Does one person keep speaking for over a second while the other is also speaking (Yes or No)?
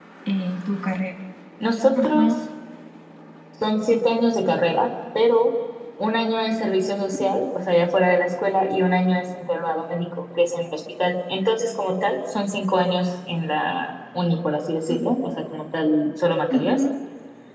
No